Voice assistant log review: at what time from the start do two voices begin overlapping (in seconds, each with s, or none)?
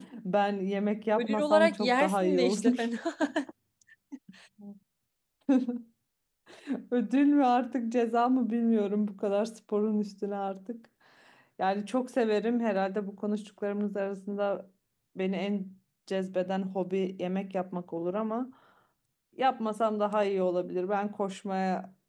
1.2 s